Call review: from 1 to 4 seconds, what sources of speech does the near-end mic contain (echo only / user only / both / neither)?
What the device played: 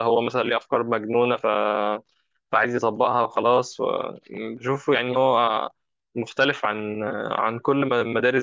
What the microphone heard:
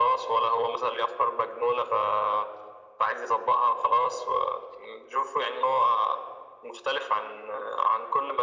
echo only